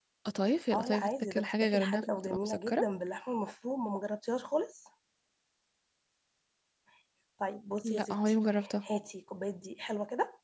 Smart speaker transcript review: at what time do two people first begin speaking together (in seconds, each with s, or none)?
0.7 s